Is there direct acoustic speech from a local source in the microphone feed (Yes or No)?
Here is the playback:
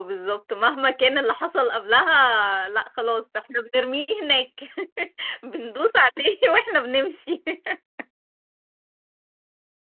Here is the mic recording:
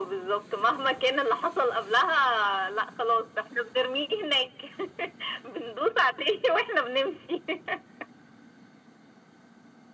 No